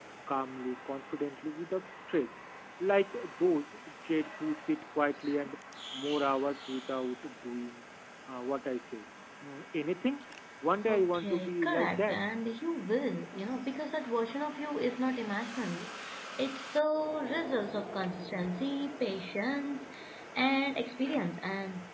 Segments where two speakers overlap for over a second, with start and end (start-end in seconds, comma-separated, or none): 10.9-12.2